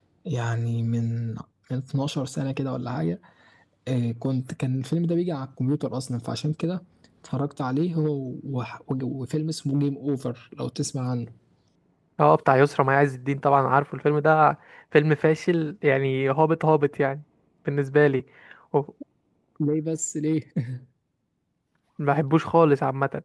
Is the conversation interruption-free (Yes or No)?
Yes